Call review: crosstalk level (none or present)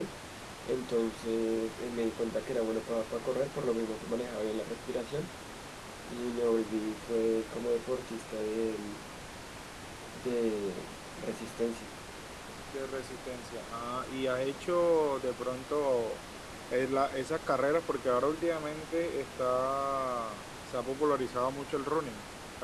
none